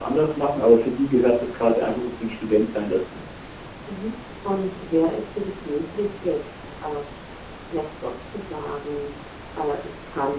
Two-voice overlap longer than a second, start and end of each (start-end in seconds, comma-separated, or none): none